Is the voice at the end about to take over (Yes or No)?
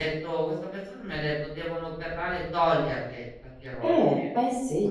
Yes